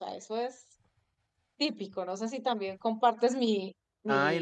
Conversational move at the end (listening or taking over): taking over